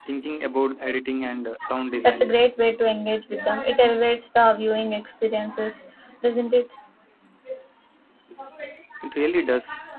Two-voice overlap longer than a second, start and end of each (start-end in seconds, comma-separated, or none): none